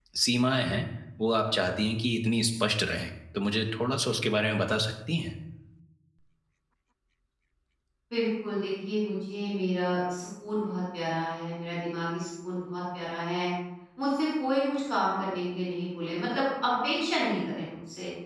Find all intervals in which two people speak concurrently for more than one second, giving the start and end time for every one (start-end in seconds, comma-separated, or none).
none